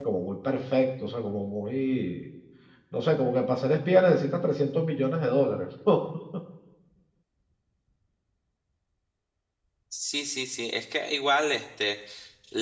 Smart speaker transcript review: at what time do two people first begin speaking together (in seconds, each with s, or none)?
none